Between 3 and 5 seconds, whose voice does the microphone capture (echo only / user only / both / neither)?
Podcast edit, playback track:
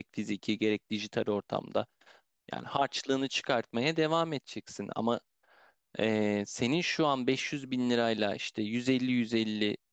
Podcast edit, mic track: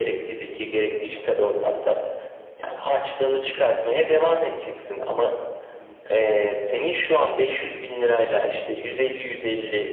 both